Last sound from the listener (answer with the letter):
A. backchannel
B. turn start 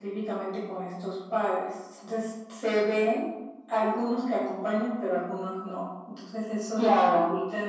A